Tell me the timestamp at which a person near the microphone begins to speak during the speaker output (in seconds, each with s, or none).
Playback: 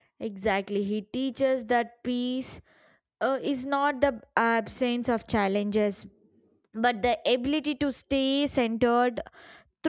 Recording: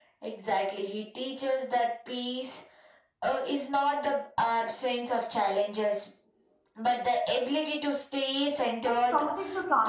8.8 s